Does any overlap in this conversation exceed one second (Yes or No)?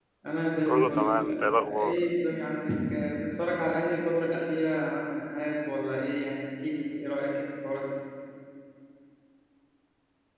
Yes